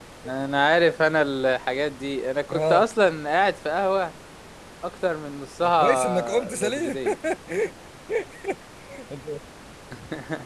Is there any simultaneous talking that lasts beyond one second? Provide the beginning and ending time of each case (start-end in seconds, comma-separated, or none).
5.6-7.0